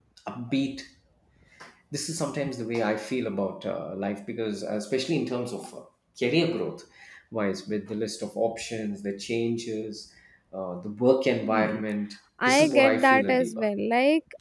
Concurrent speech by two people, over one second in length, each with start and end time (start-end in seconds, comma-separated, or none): 12.5-13.7